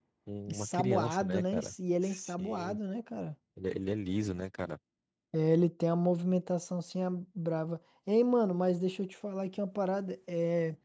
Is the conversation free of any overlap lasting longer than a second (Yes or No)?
No